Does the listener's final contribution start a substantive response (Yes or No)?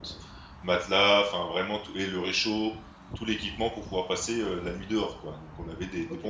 Yes